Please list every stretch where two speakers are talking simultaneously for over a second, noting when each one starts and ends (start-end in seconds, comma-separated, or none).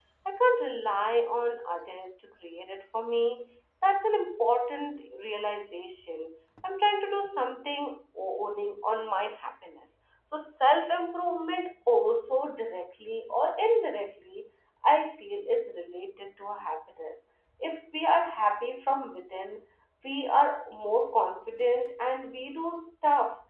none